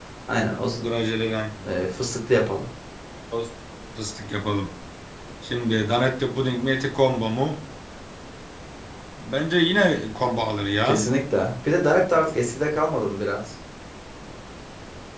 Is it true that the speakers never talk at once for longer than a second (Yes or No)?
Yes